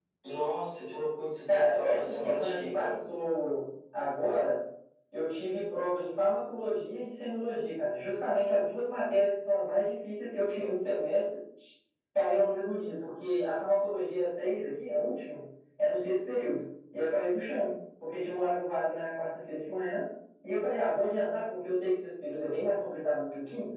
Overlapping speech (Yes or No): Yes